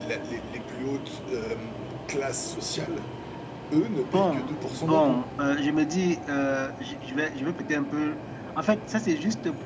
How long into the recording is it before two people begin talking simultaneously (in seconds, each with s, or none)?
4.0 s